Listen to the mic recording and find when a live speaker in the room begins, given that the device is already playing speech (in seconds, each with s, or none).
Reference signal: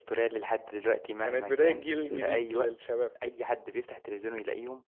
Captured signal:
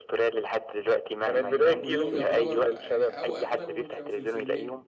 1.3 s